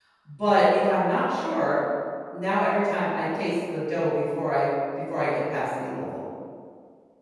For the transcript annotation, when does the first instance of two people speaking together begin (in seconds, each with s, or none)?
none